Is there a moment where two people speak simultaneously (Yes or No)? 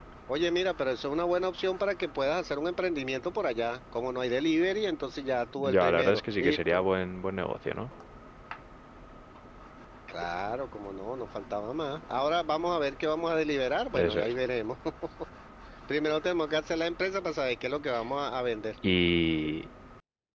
Yes